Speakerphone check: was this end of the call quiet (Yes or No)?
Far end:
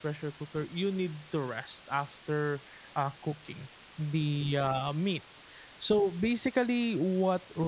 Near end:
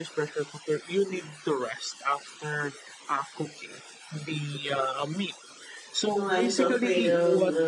No